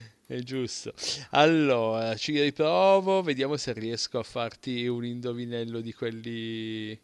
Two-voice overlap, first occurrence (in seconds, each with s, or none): none